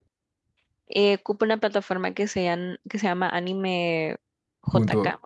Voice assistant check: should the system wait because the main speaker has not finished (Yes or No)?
No